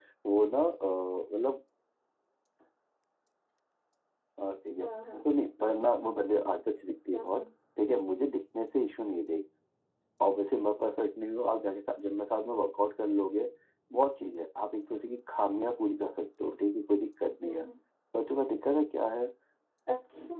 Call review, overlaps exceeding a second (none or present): none